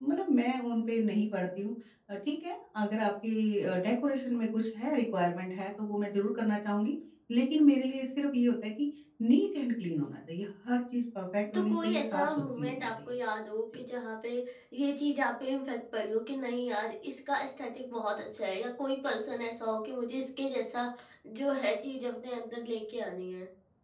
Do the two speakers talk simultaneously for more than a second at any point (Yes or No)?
Yes